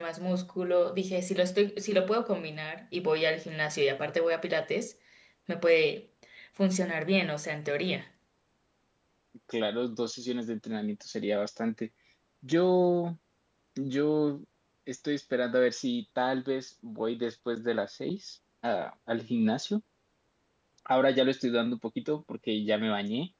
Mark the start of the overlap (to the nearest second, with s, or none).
none